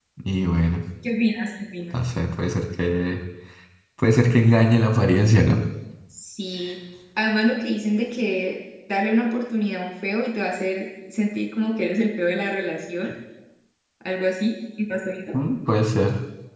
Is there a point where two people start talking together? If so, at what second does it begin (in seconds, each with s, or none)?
none